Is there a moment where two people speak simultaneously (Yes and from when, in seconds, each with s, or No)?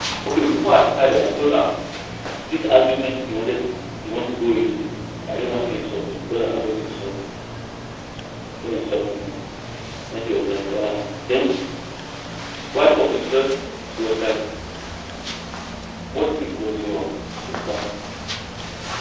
No